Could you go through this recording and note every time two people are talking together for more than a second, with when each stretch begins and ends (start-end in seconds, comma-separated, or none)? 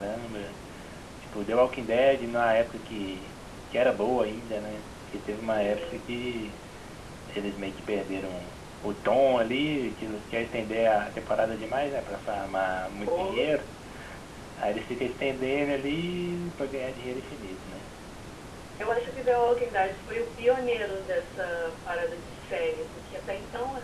none